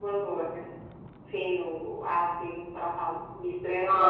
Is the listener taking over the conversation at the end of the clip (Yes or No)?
Yes